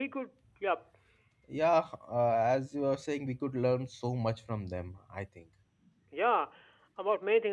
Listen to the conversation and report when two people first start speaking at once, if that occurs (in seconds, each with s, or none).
none